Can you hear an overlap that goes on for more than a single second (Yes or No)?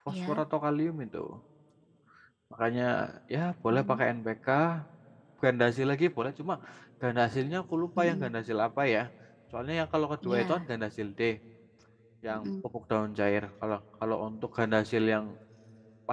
No